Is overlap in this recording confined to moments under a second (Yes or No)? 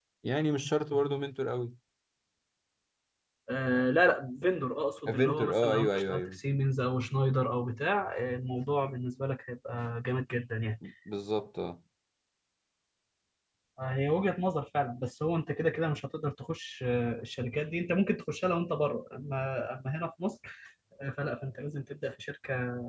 No